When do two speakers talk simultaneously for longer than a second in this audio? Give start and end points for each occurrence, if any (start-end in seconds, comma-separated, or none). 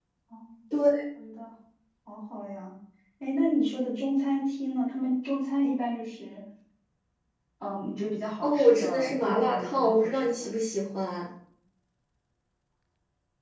8.4-10.5